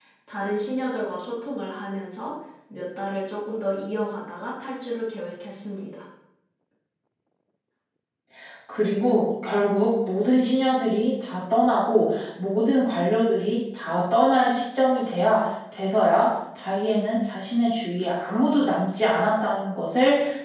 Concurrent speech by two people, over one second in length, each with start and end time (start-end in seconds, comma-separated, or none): none